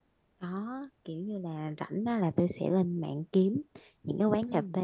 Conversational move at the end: listening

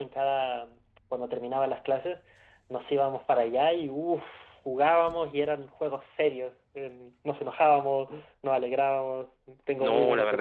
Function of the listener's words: taking over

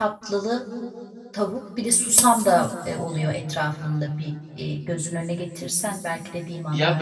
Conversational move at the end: taking over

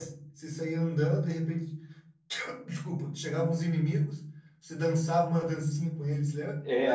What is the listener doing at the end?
taking over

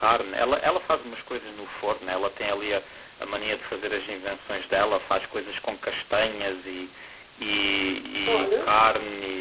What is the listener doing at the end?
listening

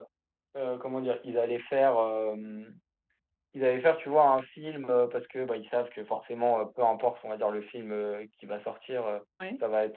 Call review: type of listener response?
listening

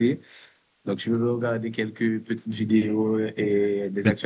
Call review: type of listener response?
listening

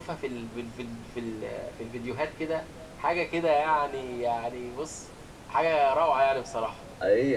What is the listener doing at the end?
taking over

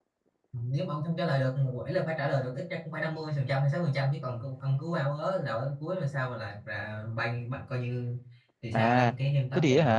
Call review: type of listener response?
taking over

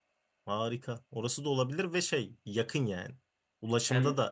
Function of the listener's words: listening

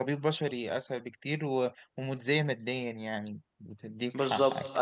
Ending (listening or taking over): taking over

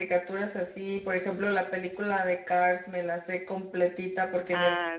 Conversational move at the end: listening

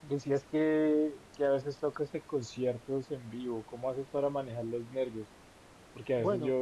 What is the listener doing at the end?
listening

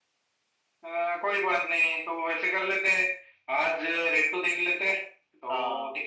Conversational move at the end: listening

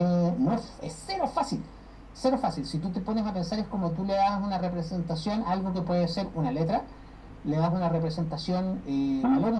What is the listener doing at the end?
taking over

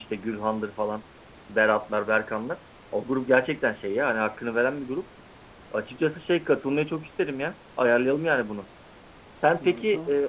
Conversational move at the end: listening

